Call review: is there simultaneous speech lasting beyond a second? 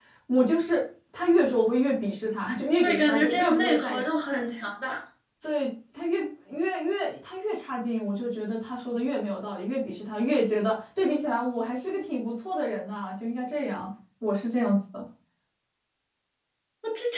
Yes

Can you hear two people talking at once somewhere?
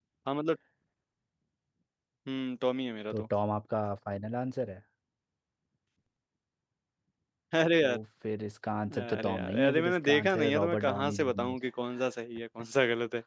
Yes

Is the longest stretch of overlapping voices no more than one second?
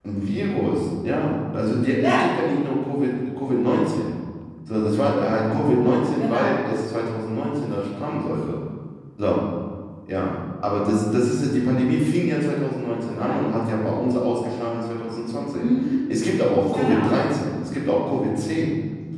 Yes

